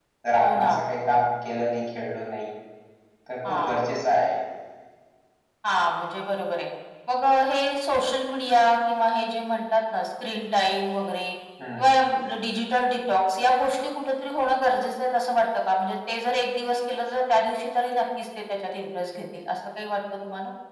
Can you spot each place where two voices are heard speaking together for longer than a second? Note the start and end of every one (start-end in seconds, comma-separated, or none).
none